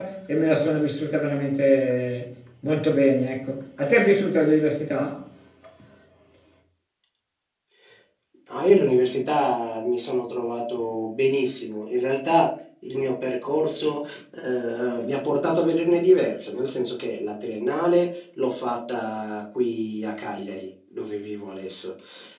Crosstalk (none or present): none